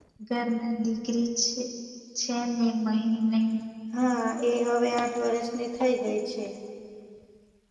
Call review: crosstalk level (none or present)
none